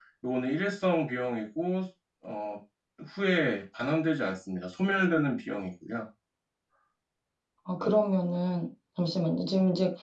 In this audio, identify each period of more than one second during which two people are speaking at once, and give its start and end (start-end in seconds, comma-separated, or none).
none